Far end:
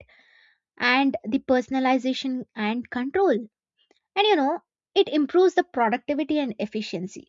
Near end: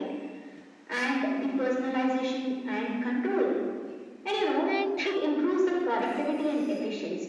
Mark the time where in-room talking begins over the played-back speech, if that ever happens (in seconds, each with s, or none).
4.7 s